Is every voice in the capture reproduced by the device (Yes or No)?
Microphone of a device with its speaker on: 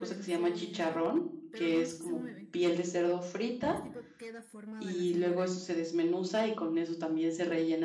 No